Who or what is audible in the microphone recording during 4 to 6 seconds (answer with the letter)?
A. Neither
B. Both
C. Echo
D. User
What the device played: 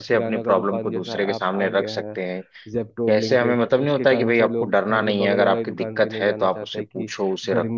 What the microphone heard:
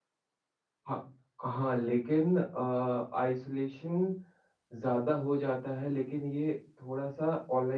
D